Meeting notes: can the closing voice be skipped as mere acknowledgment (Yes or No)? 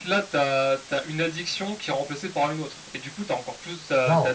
No